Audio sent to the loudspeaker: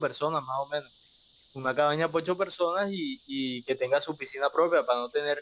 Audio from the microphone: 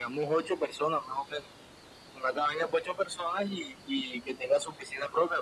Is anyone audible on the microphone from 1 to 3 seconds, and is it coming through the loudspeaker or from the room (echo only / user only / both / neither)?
echo only